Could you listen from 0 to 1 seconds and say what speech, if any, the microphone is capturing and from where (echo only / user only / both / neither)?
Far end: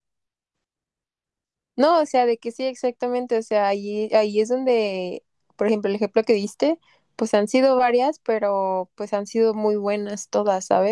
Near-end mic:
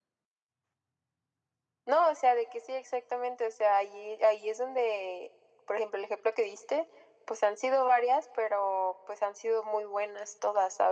neither